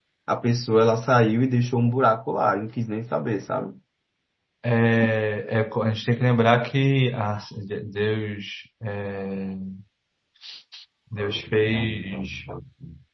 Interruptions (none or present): none